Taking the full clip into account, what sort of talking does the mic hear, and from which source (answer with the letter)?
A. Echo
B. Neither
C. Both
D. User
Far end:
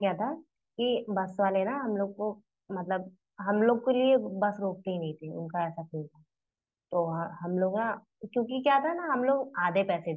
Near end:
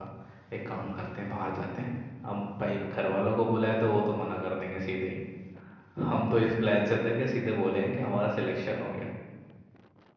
D